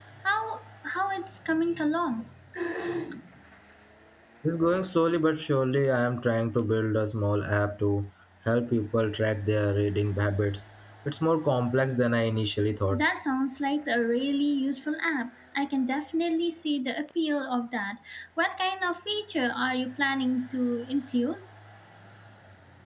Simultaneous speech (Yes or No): No